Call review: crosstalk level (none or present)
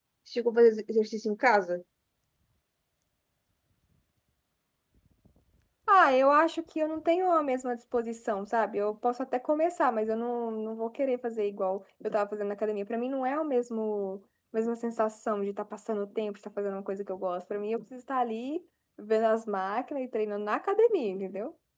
none